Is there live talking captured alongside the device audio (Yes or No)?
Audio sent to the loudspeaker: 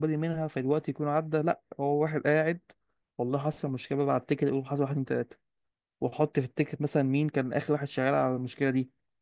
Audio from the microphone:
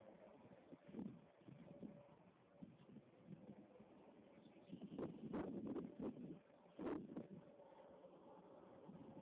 No